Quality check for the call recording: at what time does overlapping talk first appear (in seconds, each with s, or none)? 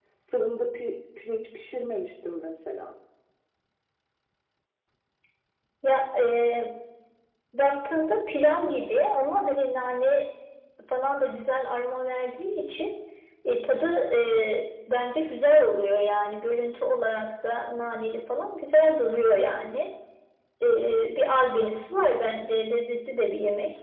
none